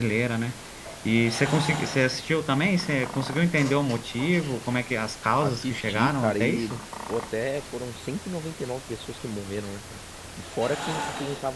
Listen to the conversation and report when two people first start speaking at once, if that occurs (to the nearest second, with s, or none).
5 s